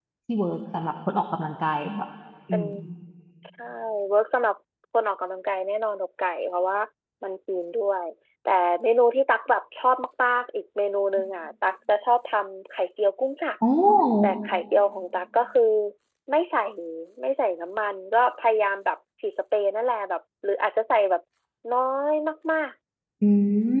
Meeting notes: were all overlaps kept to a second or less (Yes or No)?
Yes